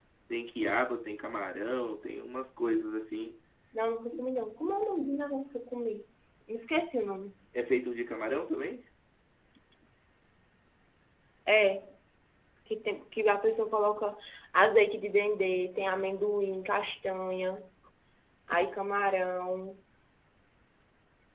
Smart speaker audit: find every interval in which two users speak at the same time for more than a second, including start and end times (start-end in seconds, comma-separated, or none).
none